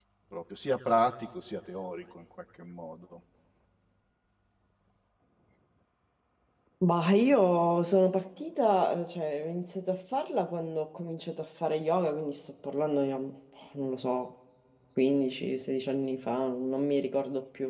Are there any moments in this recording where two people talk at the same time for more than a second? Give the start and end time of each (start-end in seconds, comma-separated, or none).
none